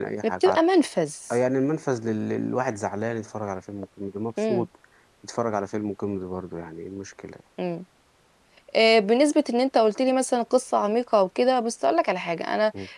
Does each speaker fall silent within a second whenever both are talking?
Yes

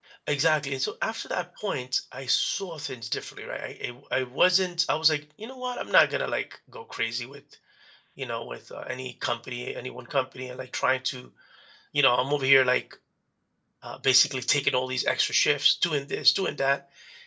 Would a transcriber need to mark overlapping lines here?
No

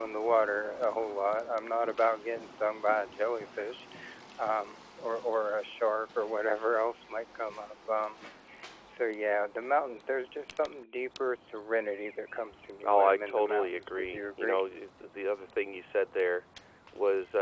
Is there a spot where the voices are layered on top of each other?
Yes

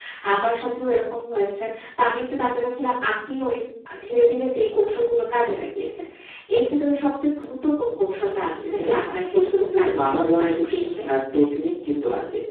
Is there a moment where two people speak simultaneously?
Yes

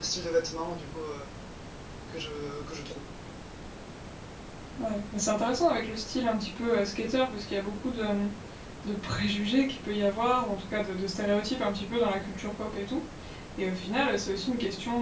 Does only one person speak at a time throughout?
Yes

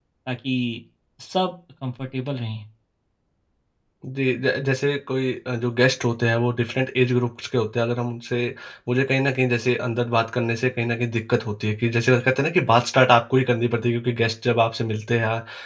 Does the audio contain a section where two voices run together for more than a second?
No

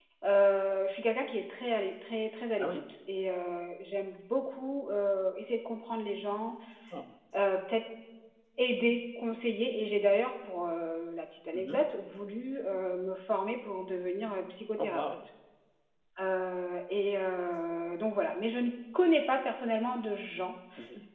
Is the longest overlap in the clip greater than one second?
No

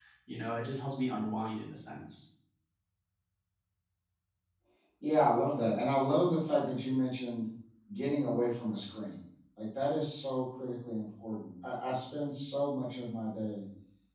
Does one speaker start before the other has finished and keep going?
No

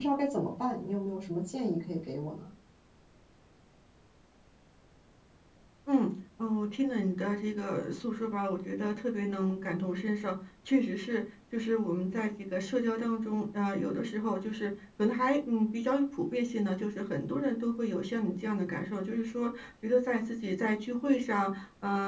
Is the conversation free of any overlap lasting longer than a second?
Yes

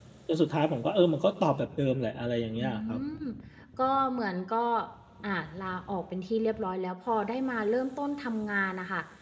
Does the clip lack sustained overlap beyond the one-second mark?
Yes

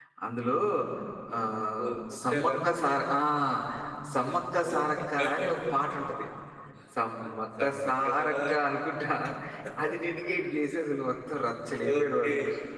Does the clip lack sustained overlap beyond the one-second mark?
No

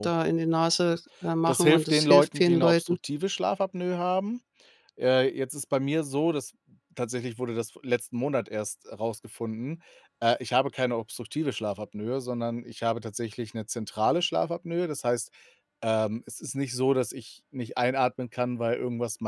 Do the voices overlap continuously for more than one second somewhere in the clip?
Yes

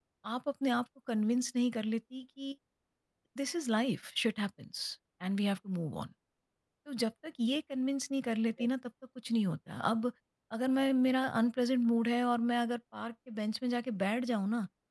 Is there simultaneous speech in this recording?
No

